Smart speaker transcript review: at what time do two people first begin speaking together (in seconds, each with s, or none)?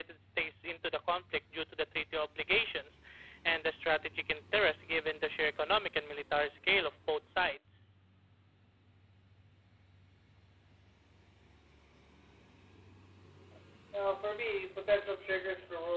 none